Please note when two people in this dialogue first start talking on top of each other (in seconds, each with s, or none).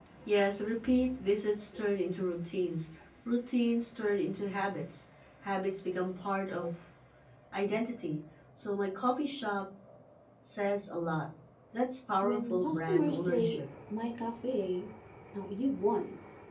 12.2 s